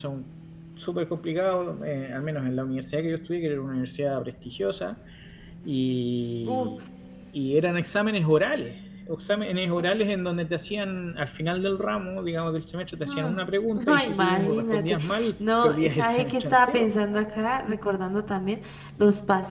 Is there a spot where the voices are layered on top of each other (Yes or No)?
Yes